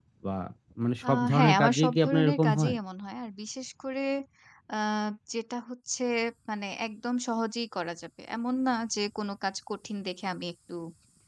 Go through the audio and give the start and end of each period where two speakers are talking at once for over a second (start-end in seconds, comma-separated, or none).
1.1-2.8